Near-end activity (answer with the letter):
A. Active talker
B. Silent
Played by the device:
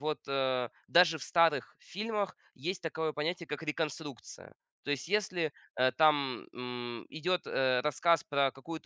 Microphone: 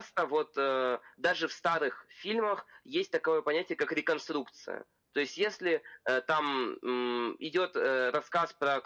B